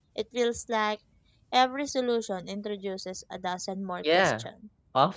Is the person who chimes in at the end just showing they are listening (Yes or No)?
No